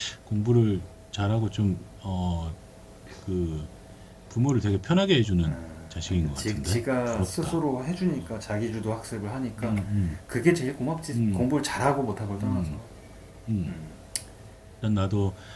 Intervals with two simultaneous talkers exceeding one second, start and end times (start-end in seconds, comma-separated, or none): 6.1-7.6